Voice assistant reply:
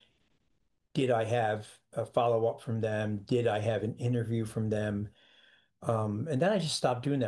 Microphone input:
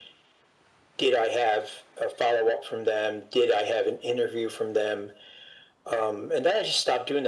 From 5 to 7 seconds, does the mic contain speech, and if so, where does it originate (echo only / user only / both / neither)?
echo only